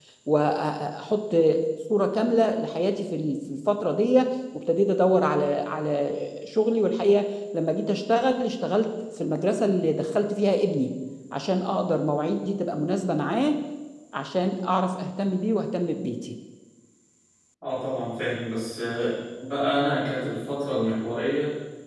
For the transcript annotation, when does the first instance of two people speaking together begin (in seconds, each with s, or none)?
none